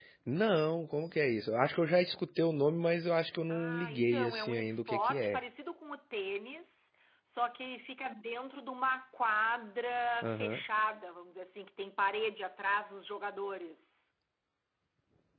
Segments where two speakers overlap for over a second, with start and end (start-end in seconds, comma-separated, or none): 3.5-5.4